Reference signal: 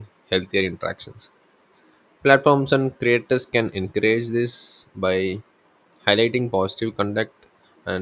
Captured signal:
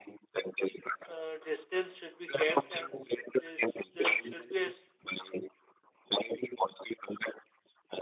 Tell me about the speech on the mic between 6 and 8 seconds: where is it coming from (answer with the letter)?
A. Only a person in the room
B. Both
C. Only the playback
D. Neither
C